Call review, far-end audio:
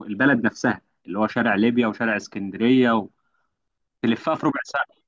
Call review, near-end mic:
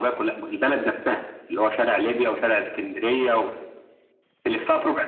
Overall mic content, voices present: echo only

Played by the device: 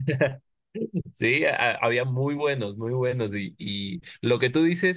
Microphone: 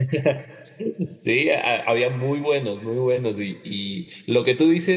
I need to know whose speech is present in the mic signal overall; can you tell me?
echo only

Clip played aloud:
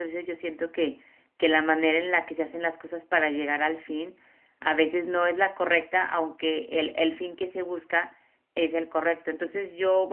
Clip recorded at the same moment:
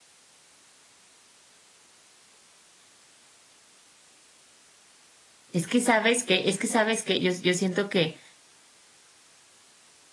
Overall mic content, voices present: user only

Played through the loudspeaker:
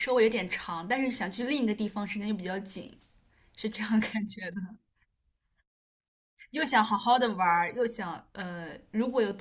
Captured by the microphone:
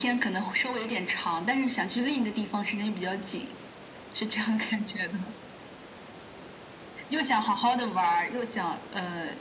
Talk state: echo only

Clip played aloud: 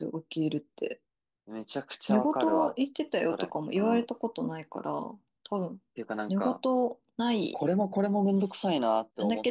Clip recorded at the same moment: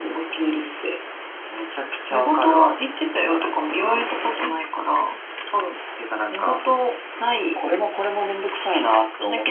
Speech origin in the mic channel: echo only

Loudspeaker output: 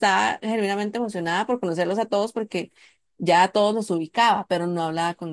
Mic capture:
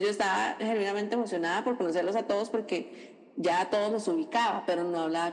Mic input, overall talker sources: echo only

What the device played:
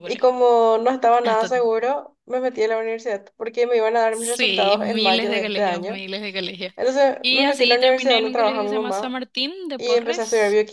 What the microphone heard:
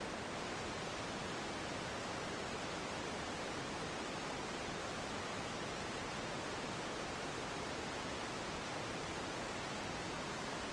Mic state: neither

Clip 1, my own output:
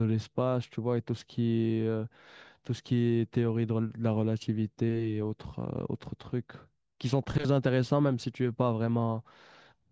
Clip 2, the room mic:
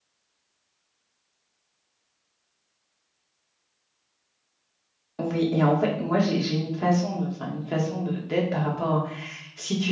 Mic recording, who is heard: user only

